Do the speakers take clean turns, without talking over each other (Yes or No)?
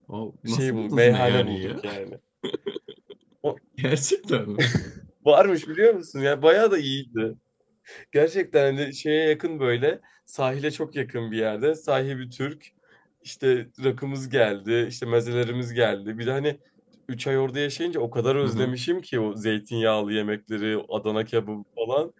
No